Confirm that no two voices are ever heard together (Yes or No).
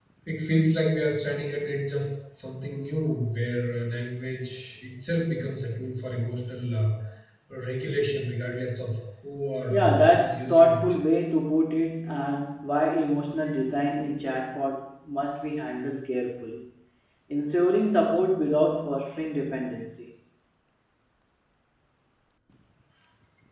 No